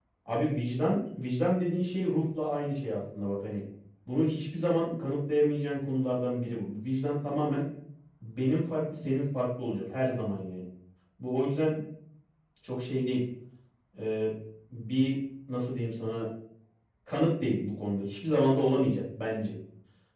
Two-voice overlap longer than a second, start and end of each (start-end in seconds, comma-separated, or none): none